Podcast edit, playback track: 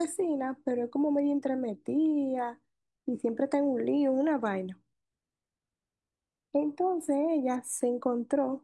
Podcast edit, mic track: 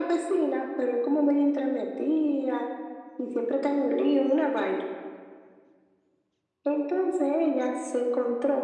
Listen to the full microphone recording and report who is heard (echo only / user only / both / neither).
echo only